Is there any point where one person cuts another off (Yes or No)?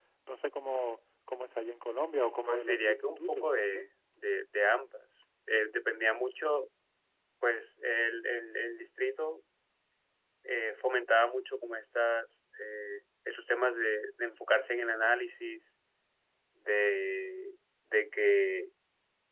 Yes